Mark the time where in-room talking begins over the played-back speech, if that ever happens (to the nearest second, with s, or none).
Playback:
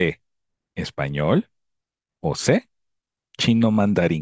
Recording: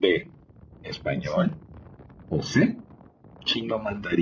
1 s